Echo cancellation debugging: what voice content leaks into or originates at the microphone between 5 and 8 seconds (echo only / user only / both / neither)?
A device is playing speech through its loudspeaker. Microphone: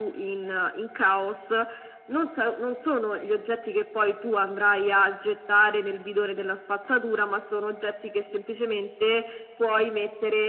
echo only